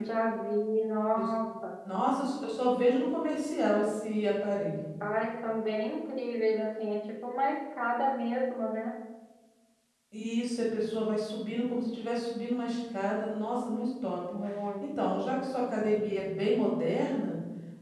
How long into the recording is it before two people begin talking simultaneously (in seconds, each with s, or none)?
none